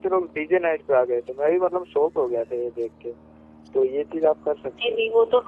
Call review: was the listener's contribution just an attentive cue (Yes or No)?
No